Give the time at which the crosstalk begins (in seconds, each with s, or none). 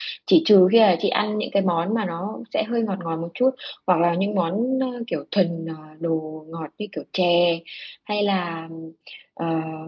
none